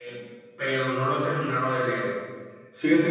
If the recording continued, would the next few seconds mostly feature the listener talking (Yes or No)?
Yes